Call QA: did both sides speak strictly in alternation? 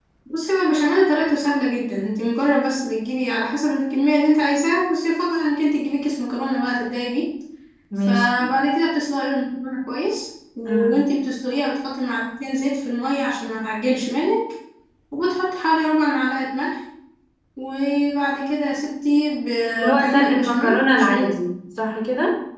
No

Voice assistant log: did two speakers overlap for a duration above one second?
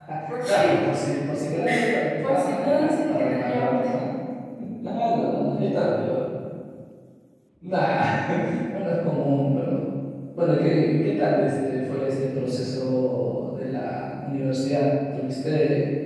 Yes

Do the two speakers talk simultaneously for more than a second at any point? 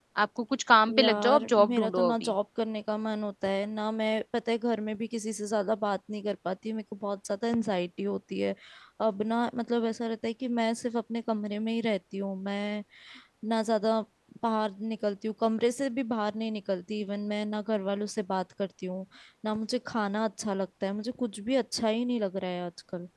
Yes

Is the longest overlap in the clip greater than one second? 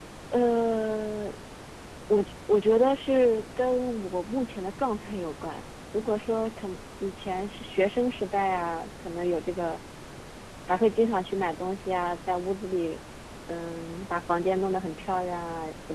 No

